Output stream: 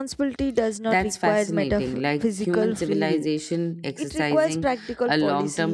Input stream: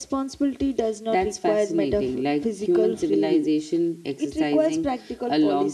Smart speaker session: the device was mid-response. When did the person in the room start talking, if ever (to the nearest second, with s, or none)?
none